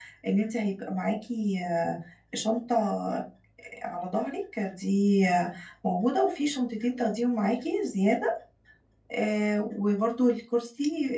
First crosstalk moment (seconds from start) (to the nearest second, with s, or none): none